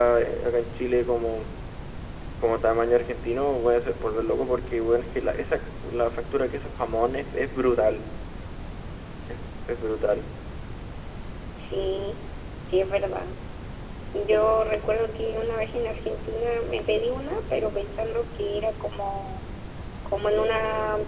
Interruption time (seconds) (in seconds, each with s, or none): none